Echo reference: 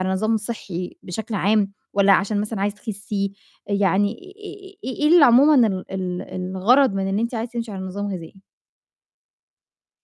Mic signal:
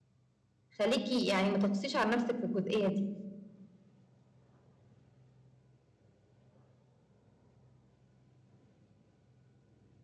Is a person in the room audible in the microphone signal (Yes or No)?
Yes